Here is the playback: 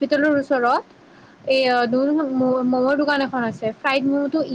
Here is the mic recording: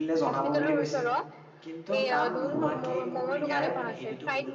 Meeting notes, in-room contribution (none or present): present